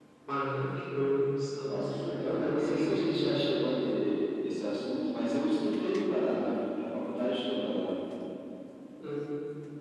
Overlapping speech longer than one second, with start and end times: 1.7-3.3

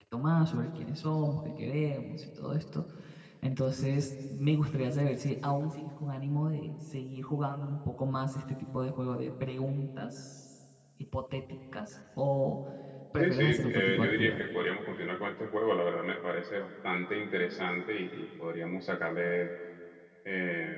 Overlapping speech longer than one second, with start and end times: 13.2-14.4

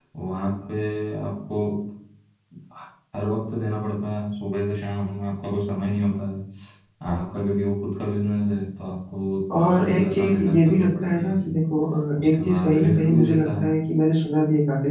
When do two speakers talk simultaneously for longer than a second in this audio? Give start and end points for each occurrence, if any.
9.6-11.4, 12.2-13.7

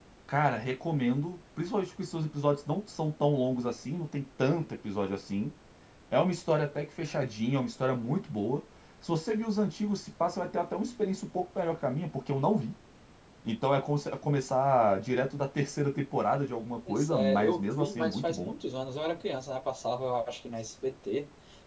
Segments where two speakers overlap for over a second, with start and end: 16.9-18.5

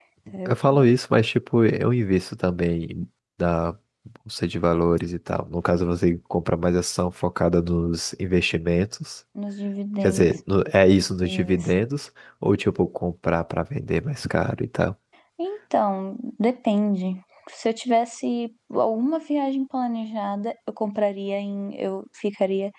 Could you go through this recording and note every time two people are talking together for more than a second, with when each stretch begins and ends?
none

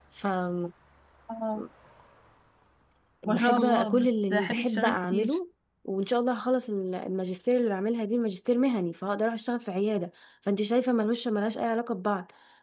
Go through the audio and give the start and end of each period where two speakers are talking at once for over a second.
3.3-5.3

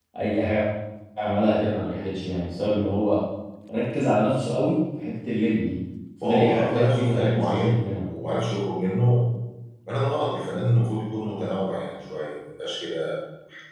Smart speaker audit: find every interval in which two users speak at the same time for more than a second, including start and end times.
6.2-7.8

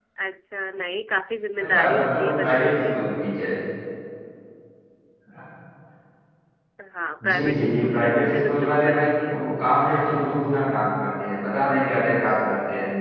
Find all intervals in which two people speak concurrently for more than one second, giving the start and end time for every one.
1.6-2.9, 7.2-9.4

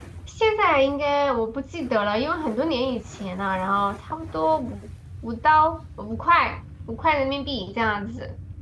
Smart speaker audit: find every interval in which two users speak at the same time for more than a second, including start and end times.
none

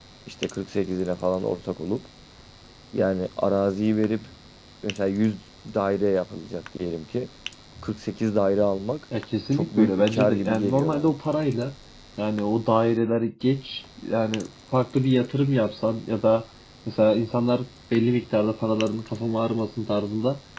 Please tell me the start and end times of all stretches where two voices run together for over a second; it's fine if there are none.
9.5-11.1

